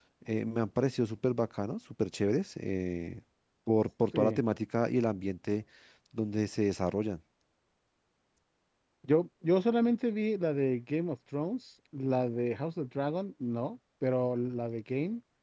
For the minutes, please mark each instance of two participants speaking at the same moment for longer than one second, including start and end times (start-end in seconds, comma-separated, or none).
none